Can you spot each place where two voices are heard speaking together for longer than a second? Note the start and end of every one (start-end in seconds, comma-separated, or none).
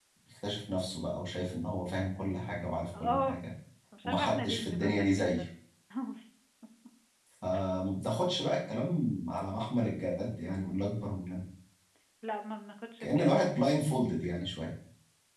4.1-5.4